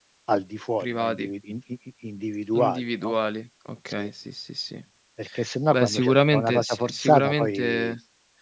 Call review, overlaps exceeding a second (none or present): present